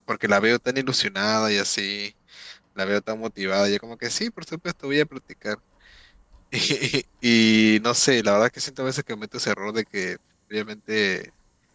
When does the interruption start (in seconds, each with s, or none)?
none